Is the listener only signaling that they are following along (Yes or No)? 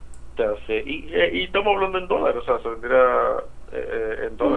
No